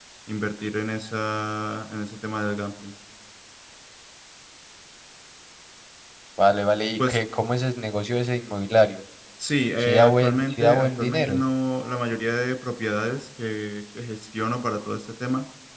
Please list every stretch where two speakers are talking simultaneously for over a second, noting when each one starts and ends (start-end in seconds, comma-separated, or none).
9.8-11.4